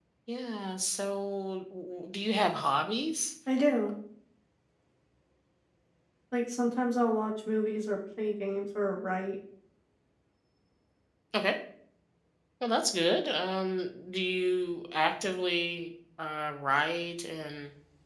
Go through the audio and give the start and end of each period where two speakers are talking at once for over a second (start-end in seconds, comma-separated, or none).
none